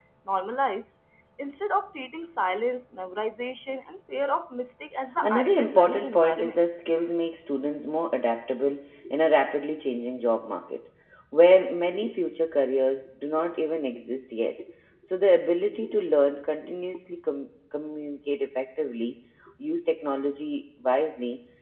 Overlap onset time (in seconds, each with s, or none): 5.2 s